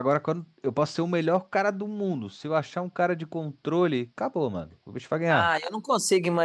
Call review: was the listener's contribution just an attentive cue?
No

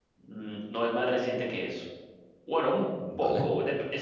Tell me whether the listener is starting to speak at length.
No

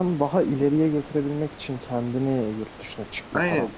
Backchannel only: No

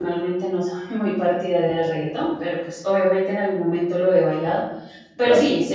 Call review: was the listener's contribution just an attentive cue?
Yes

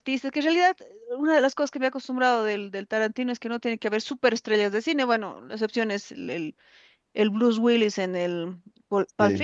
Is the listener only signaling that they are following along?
Yes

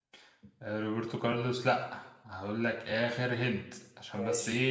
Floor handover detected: No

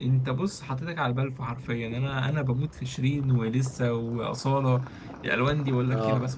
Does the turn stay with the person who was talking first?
No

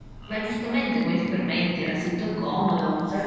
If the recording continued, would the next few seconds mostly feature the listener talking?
Yes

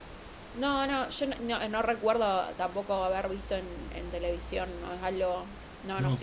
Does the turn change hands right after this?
No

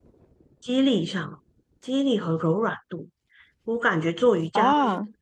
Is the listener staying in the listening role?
Yes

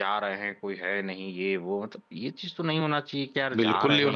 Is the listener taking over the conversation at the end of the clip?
Yes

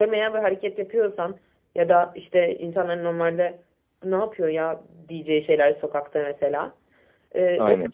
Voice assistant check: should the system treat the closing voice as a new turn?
No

